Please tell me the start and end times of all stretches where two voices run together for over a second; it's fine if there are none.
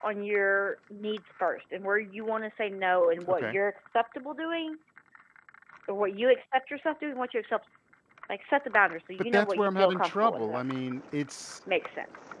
9.3-10.6

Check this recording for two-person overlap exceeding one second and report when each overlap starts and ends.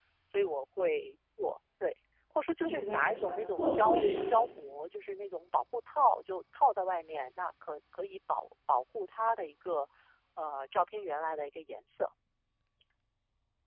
2.6-4.3

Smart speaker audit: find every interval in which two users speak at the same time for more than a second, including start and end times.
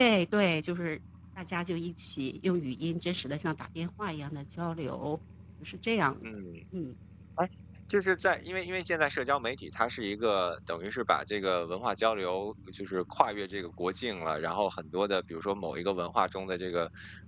none

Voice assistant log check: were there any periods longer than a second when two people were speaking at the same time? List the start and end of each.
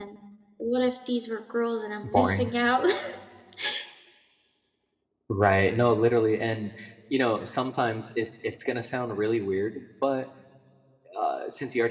none

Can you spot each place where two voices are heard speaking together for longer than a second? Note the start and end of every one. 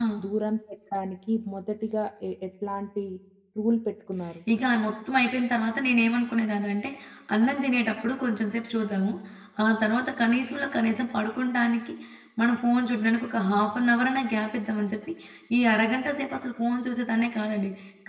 none

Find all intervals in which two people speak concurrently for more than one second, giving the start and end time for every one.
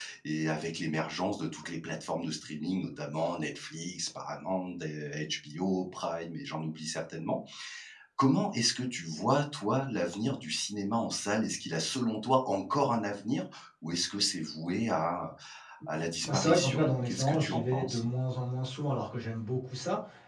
16.2-18.0

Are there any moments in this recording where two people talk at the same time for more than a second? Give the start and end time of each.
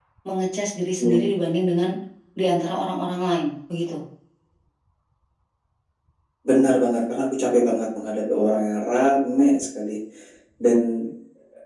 none

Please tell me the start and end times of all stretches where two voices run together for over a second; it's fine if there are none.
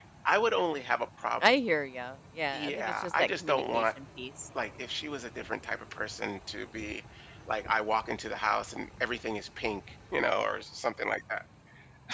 2.5-3.8

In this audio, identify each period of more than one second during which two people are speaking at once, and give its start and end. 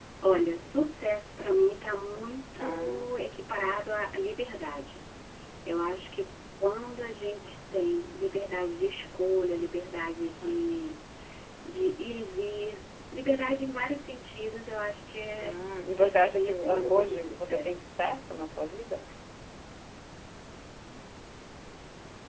15.9-18.0

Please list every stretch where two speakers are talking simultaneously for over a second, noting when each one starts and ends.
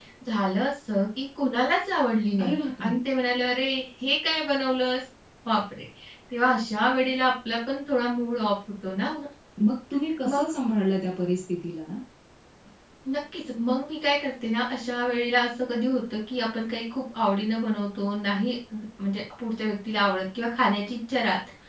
none

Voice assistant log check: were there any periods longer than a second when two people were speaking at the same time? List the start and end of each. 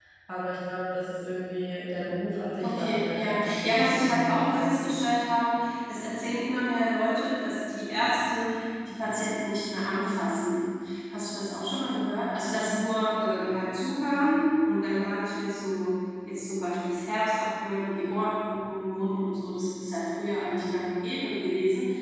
2.6-4.7

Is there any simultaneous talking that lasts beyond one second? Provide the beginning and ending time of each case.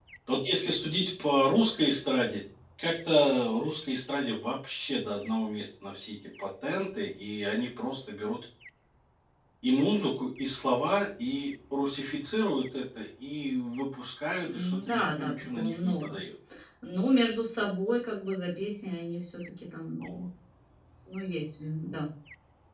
14.4-16.2

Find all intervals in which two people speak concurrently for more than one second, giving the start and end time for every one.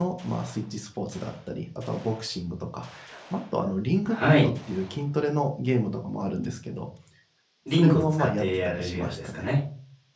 7.7-9.5

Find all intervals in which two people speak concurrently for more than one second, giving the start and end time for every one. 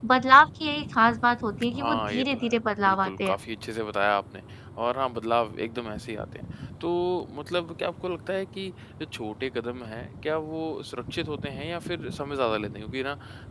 1.8-3.3

